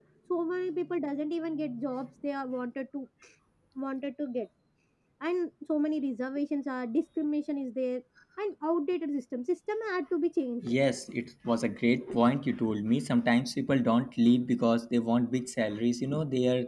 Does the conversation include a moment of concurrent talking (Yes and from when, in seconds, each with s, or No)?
No